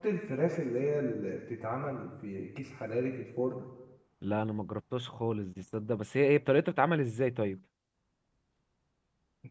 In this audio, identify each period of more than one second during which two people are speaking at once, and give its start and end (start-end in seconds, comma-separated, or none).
none